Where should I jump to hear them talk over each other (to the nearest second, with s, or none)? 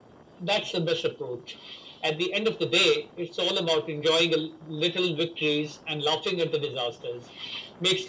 none